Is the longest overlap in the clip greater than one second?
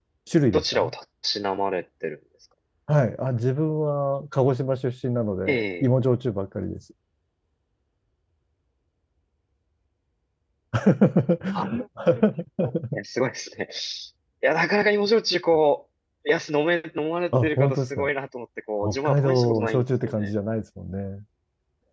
Yes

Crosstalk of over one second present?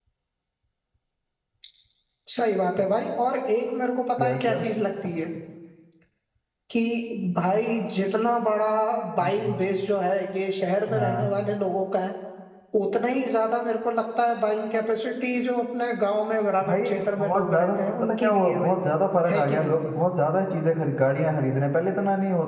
Yes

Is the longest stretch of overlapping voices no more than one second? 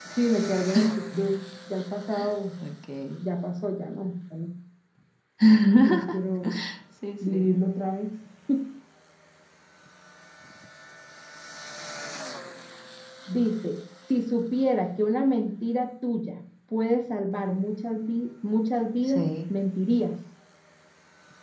Yes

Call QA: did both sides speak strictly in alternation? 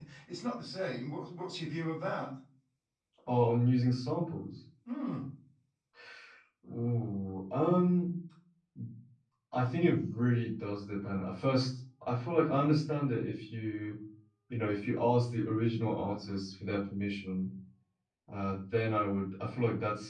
Yes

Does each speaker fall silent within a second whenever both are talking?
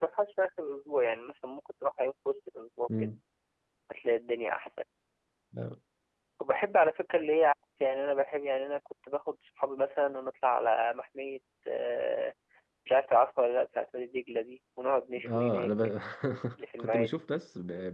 Yes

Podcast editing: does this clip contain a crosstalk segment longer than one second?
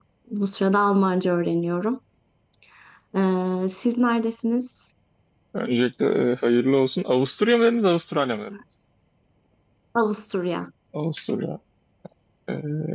No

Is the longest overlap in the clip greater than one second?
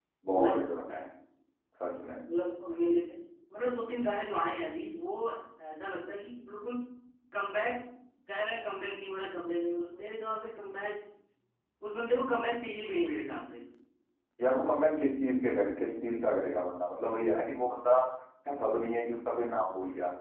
No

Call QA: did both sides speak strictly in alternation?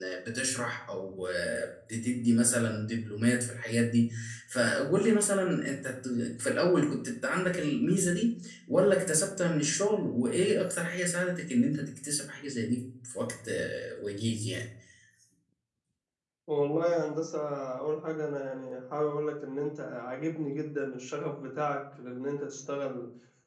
Yes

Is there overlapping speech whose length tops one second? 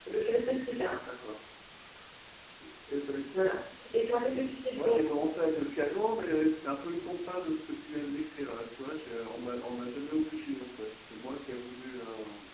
No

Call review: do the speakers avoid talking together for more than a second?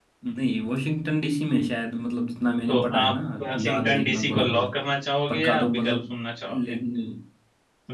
No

